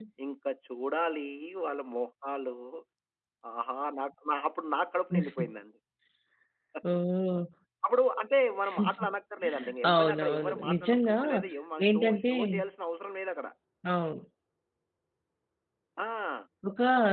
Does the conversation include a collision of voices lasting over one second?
Yes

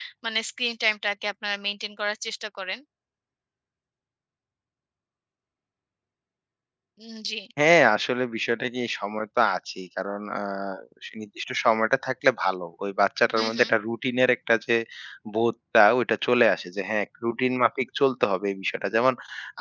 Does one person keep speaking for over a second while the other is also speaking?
No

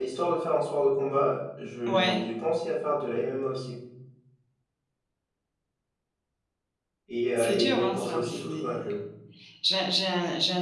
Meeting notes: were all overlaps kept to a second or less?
No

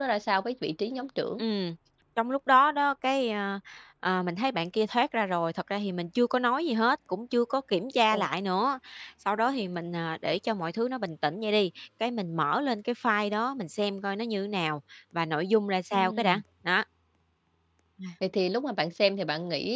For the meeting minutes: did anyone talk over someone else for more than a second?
No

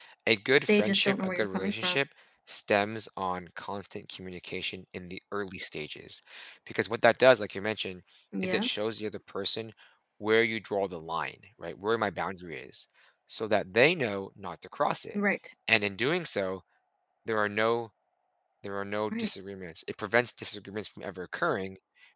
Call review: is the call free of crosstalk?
No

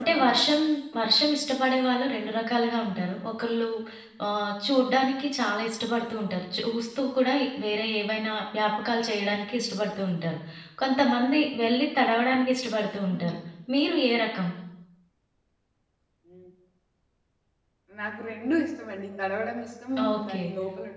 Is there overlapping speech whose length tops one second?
No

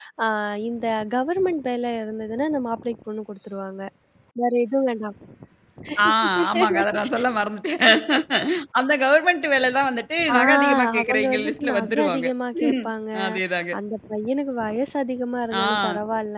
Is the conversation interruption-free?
No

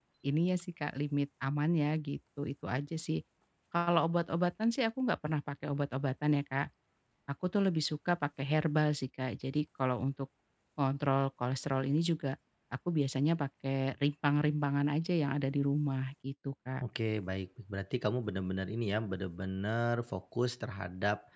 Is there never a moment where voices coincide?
Yes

